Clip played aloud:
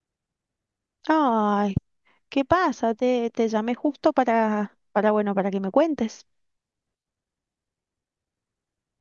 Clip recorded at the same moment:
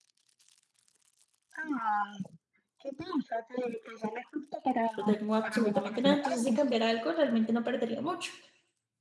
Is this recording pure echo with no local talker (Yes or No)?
No